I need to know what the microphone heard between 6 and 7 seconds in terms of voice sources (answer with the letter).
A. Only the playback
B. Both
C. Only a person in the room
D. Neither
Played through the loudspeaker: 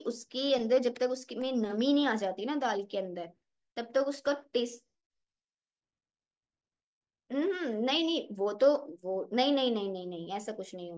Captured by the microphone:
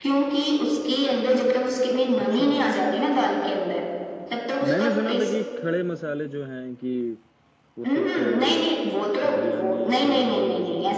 C